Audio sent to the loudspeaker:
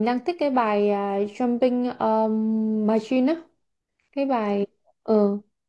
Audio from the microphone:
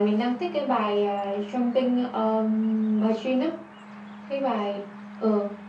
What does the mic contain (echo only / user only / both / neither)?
echo only